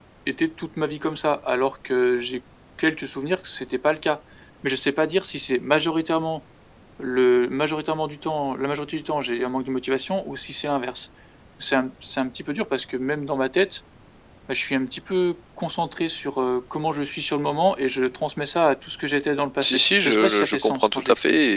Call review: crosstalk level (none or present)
present